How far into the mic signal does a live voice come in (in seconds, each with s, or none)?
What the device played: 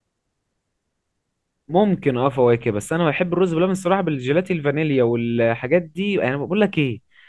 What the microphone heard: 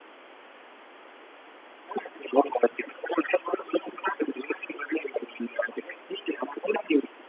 none